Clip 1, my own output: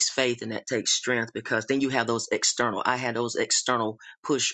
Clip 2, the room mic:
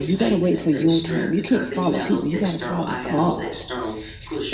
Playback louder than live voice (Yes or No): No